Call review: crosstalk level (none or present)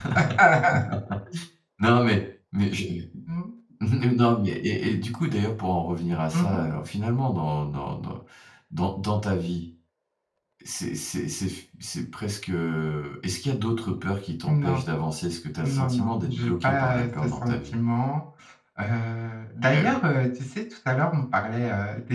present